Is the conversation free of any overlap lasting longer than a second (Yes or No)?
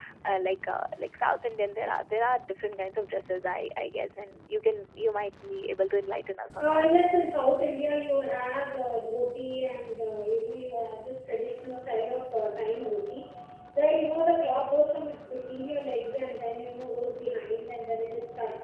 Yes